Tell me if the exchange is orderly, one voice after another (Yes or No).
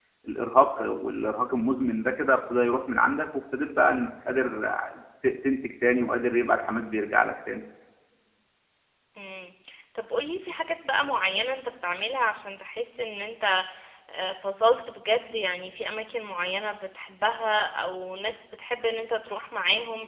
Yes